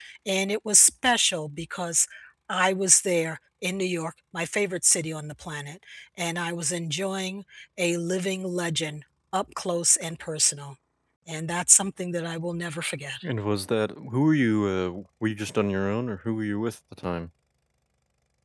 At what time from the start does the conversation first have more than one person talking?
none

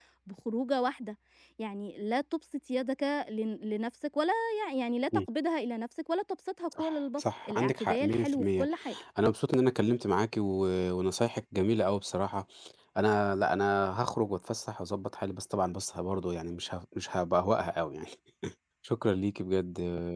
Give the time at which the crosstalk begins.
6.7 s

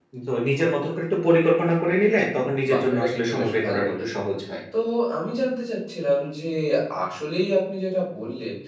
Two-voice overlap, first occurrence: 2.6 s

